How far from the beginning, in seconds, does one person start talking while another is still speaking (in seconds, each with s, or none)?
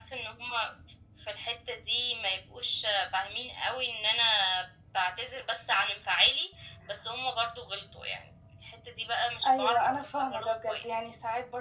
9.4 s